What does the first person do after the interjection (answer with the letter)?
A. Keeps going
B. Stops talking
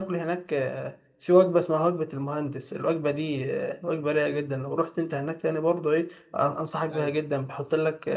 A